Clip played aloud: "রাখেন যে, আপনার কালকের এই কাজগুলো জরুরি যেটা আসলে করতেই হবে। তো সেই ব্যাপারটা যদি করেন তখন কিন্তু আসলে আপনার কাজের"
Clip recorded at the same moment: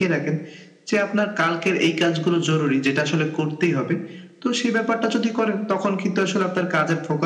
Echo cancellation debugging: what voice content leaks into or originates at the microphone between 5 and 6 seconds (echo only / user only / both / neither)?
echo only